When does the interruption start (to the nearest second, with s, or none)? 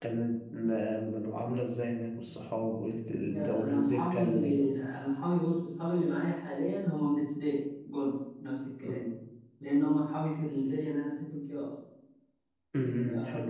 3 s